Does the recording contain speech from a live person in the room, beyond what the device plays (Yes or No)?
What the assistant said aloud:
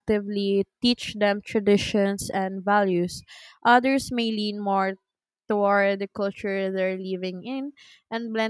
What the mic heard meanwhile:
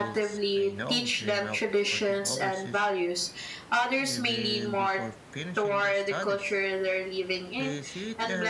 Yes